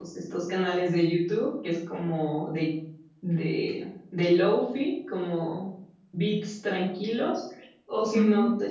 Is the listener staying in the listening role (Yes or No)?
Yes